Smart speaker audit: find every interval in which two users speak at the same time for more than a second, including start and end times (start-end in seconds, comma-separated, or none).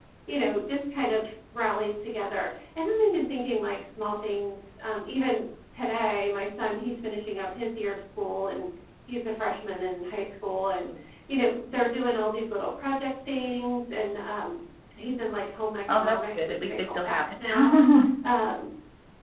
15.9-17.4